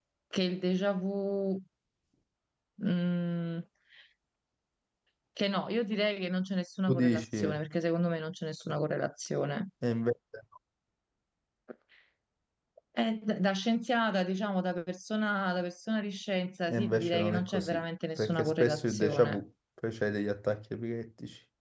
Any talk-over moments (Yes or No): Yes